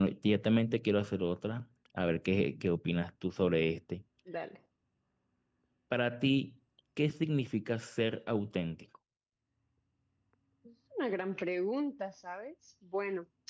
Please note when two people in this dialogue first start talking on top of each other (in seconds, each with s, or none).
none